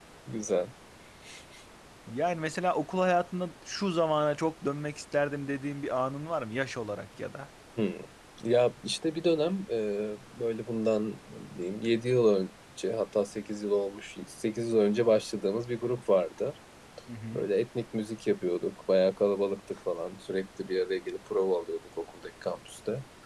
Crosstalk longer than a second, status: none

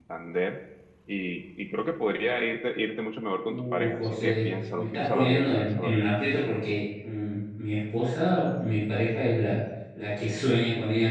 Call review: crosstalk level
present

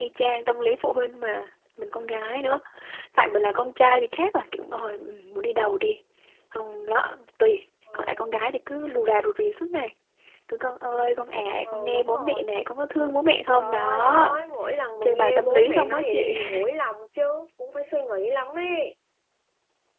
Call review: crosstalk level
present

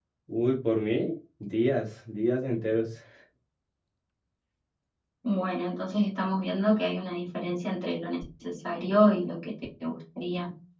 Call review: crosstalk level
none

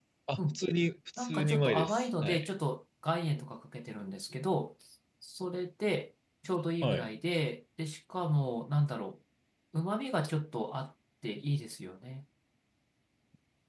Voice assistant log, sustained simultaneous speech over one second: present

